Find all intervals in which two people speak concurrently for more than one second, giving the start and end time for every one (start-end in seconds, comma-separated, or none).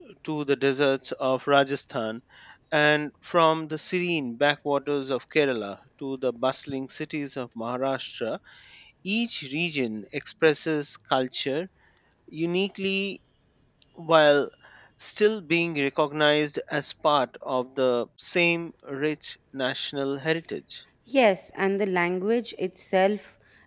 none